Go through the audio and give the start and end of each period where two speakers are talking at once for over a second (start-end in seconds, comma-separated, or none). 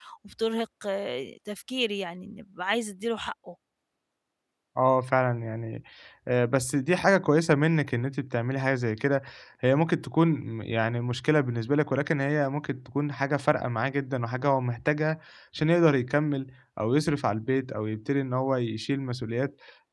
none